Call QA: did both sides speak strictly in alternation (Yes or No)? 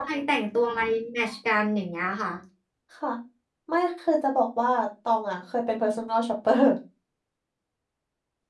Yes